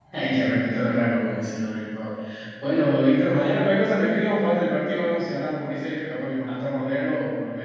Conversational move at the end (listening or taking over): listening